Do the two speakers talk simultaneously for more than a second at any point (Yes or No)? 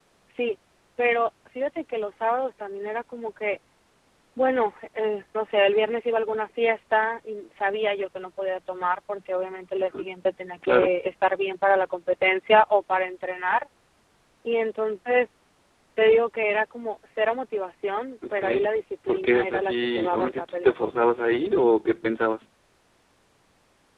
Yes